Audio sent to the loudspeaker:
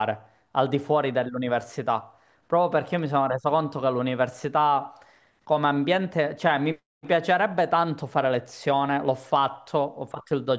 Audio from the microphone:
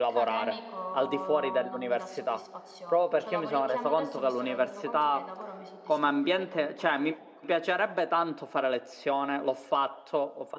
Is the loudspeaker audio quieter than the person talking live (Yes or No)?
No